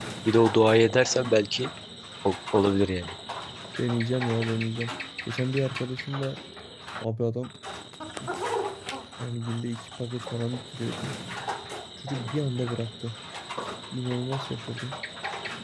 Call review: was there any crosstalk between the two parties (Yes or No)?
No